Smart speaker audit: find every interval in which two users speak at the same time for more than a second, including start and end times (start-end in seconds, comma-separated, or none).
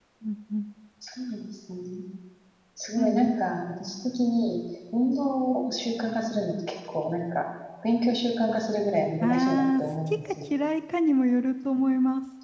9.2-10.5